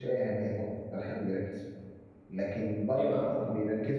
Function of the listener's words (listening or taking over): listening